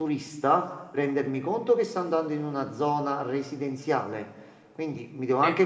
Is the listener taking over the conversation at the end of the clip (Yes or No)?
No